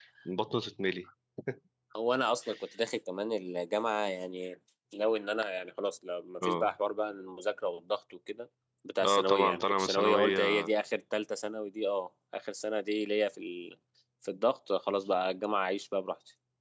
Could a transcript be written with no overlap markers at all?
No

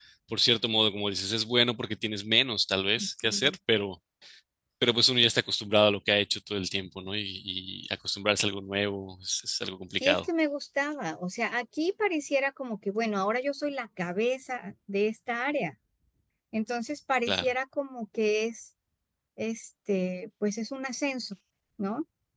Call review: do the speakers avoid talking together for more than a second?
Yes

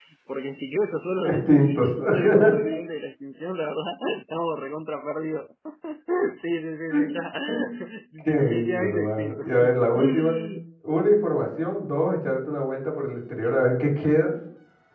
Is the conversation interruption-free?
No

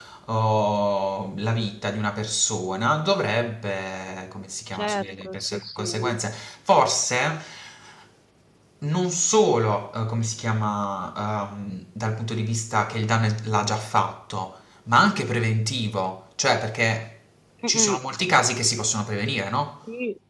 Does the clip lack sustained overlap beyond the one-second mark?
No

